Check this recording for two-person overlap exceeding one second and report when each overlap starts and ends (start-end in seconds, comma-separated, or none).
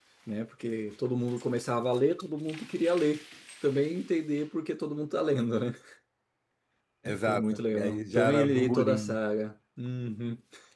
7.0-9.2